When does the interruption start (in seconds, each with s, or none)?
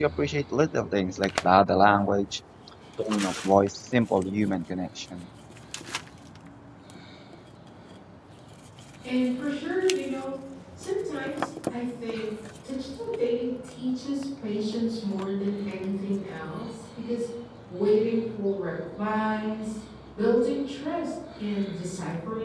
none